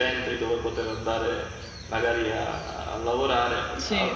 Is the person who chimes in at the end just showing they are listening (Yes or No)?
Yes